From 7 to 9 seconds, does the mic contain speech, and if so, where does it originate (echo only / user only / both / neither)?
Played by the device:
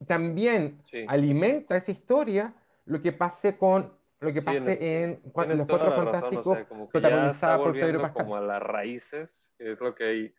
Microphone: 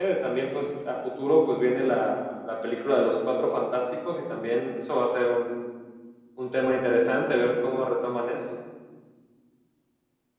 user only